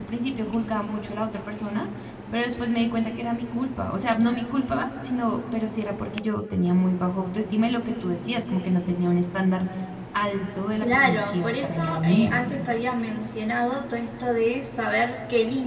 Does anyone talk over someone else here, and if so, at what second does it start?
10.8 s

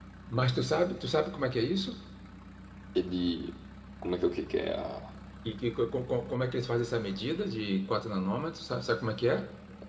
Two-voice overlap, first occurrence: none

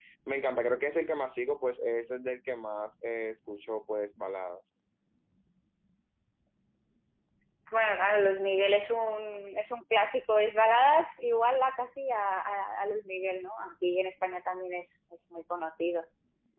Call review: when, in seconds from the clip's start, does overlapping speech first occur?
none

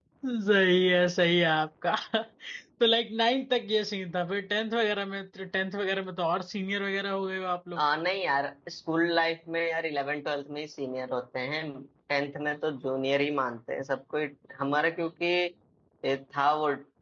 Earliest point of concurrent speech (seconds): none

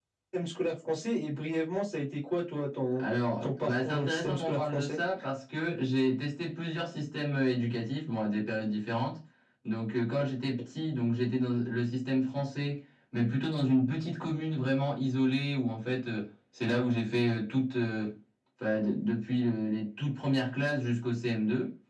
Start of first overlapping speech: 3.4 s

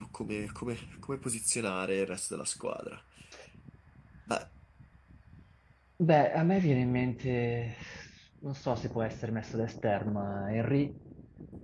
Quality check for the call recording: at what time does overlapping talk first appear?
none

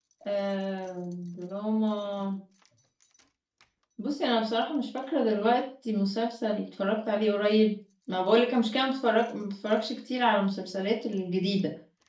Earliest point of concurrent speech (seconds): none

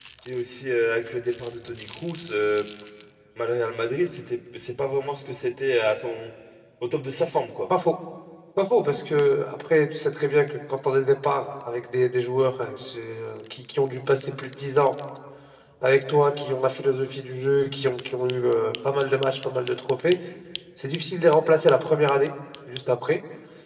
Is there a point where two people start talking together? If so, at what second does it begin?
none

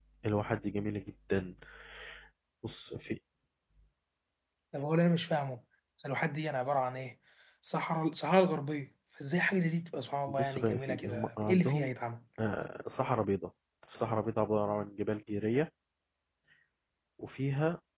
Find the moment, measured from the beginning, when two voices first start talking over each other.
10.3 s

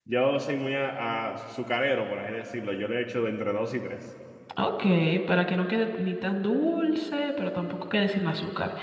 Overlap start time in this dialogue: none

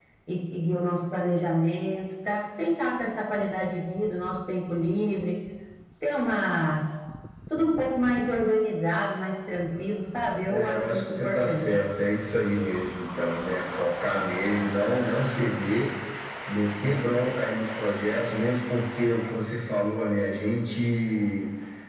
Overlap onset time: 10.5 s

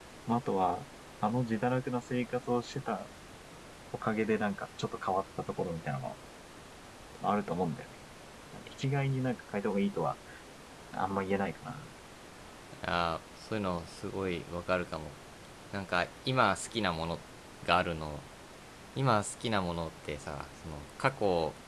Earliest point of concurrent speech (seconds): none

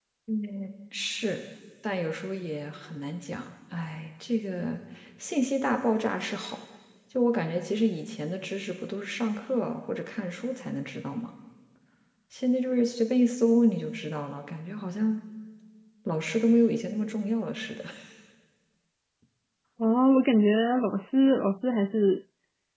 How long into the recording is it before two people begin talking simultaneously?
none

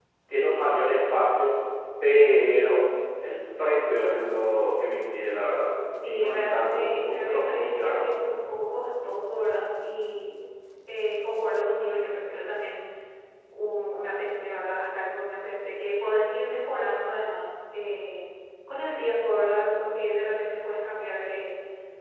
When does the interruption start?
6.0 s

